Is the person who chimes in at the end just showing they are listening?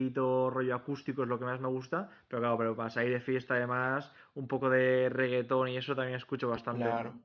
No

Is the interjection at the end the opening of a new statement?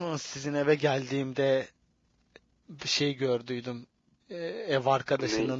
No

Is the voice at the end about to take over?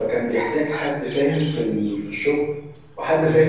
No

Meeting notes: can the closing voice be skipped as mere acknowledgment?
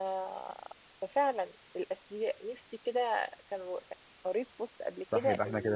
No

